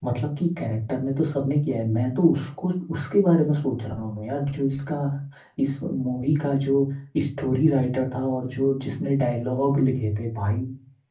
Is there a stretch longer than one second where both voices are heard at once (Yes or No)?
No